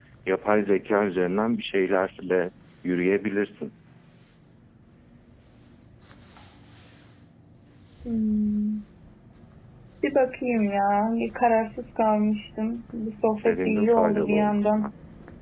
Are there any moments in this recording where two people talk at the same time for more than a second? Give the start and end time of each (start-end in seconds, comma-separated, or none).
13.4-14.9